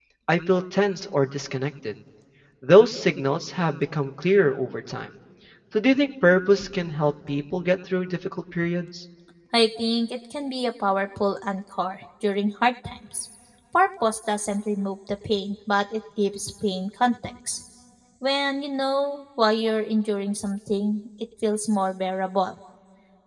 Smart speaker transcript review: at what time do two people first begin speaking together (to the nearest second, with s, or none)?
none